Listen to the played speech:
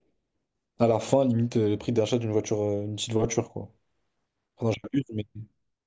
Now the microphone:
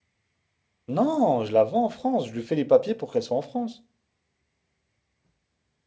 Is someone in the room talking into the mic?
Yes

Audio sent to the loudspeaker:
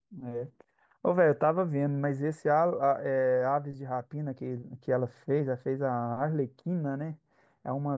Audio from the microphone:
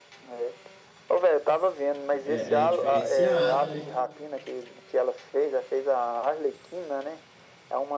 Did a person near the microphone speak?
Yes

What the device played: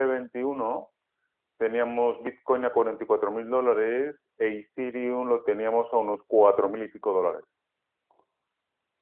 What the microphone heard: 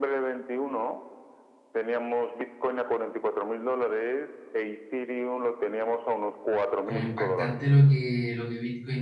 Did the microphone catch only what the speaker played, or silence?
No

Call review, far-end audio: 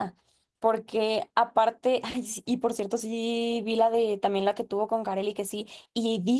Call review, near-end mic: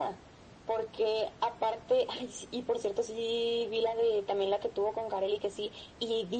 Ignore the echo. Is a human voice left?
No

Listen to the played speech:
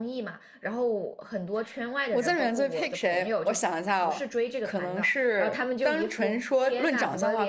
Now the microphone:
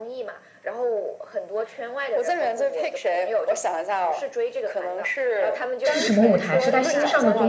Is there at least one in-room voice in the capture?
Yes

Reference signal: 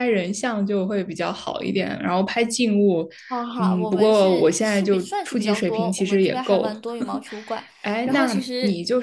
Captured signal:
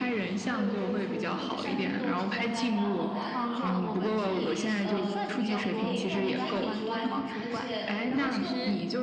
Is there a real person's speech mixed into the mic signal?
Yes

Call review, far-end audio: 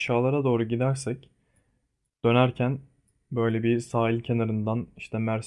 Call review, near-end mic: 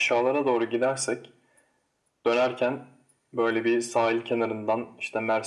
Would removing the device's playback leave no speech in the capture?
Yes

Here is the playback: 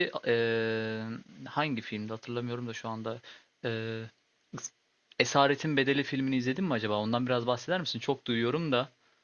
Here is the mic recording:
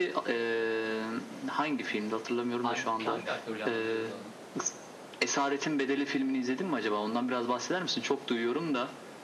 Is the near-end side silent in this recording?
No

